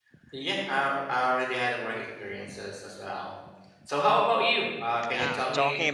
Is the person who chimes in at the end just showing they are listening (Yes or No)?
No